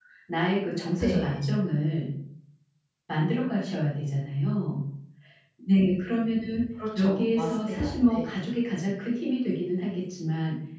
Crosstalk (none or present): present